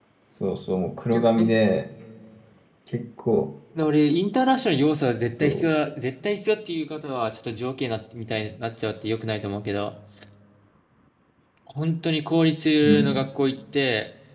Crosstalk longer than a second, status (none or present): none